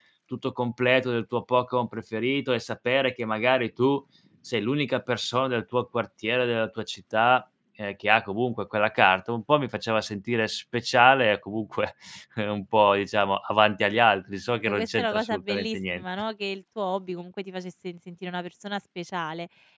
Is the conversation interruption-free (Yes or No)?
No